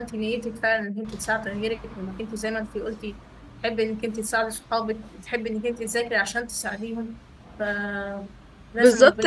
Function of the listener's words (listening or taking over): taking over